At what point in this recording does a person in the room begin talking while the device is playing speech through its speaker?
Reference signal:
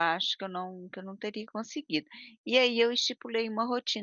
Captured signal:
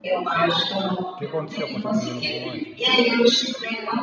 1 s

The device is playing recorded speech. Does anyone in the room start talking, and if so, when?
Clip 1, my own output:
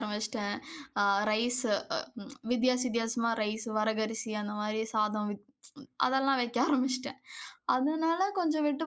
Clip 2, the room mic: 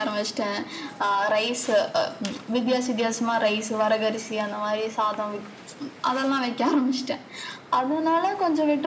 none

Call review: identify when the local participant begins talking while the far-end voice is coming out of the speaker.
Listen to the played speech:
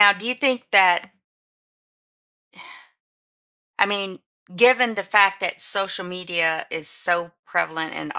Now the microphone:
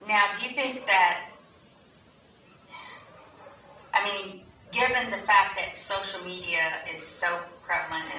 none

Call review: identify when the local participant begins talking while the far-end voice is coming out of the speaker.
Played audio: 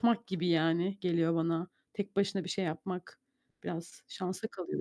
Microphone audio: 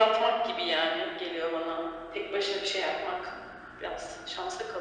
none

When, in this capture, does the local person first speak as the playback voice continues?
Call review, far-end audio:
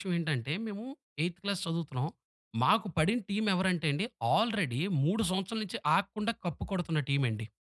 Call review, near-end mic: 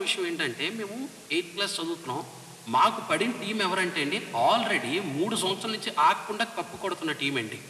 none

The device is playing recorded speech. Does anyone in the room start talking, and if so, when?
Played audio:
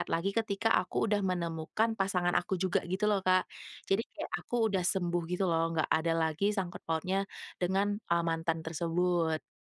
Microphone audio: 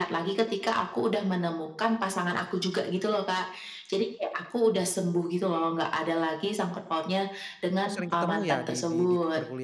8 s

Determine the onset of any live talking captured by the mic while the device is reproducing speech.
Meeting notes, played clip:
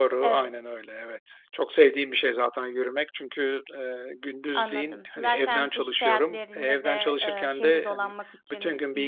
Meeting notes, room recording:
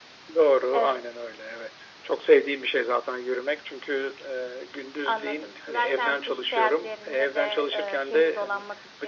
none

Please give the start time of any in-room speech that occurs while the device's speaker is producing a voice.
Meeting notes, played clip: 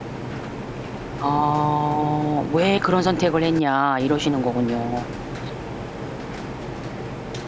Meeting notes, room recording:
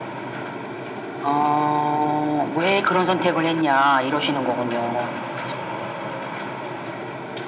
none

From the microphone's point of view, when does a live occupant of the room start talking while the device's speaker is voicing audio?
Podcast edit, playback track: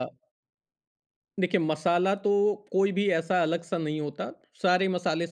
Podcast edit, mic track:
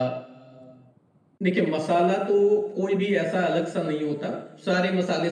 none

